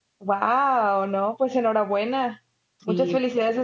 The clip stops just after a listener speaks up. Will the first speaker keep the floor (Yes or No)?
Yes